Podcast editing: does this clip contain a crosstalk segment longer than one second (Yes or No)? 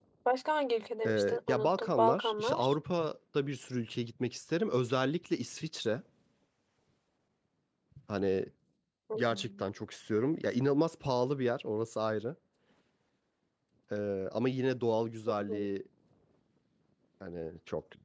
Yes